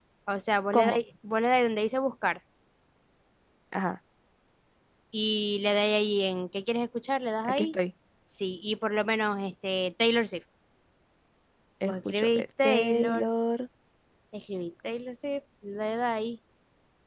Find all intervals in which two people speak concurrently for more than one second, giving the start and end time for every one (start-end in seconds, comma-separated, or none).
11.9-13.3